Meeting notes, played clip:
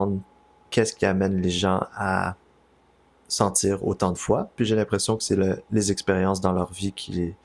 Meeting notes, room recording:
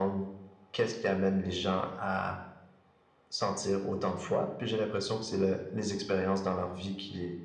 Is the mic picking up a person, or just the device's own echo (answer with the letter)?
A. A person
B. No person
B